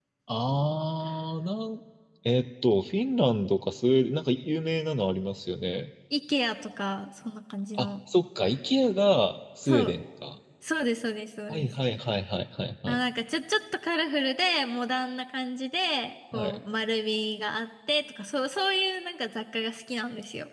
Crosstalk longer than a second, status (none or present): none